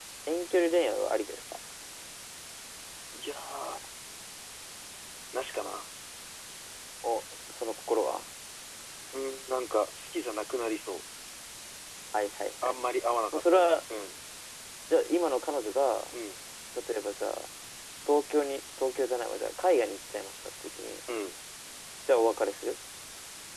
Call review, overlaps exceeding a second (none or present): none